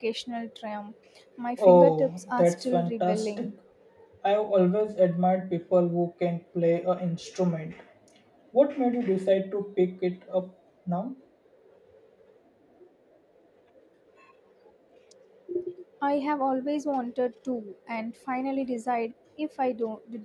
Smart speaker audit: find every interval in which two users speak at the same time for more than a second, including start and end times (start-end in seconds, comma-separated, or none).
1.6-3.5